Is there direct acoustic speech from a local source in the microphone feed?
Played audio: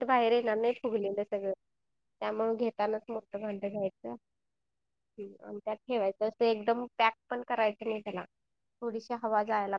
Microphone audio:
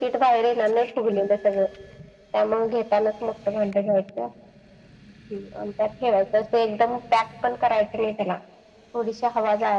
No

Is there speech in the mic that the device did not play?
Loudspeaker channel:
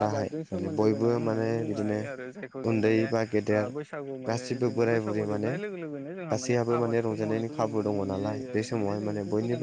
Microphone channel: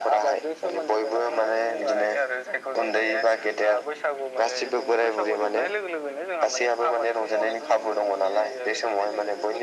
No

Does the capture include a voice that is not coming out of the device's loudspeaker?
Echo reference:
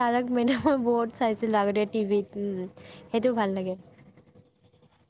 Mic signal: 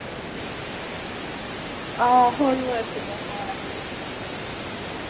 Yes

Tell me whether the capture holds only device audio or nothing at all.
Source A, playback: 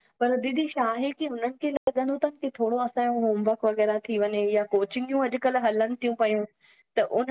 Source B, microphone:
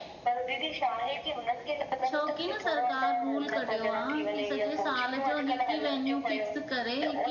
No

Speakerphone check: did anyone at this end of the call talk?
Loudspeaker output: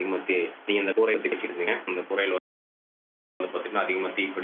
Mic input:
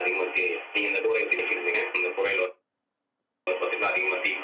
No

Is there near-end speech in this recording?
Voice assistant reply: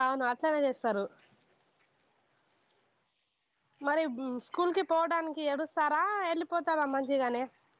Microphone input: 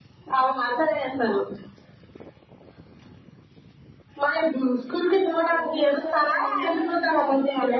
Yes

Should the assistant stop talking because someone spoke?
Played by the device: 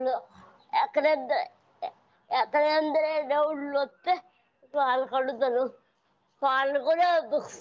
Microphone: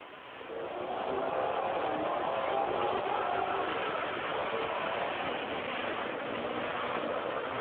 No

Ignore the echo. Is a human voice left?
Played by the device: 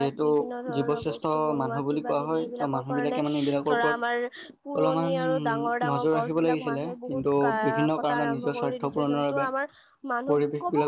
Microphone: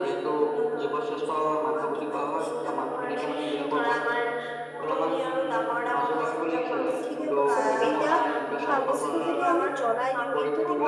Yes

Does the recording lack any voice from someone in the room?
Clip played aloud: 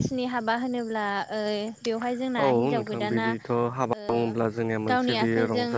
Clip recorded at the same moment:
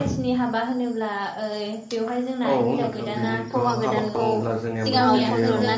No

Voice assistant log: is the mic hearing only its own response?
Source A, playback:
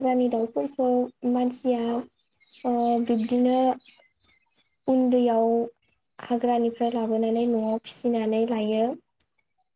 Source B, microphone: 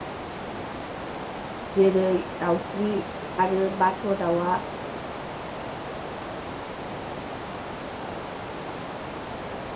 No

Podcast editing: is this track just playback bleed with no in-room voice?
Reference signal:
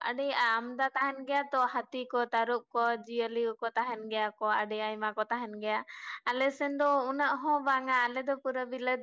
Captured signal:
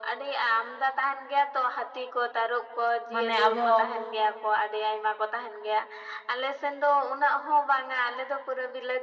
No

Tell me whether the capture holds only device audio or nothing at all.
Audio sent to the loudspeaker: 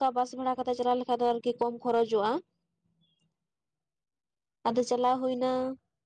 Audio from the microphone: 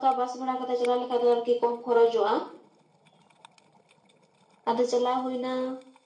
Yes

